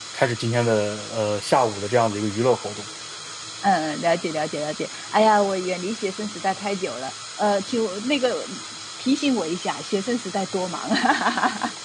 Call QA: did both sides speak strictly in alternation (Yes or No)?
Yes